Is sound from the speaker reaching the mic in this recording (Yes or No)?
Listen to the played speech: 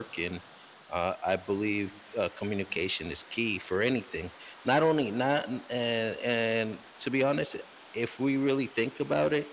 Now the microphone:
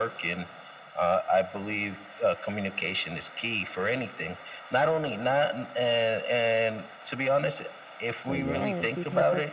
Yes